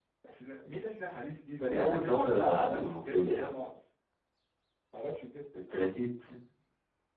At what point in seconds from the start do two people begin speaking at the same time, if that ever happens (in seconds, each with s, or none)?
1.7 s